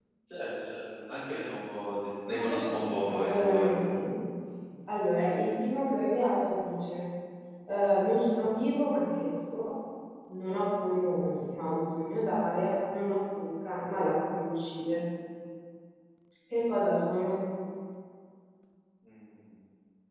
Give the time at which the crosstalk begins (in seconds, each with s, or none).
2.3 s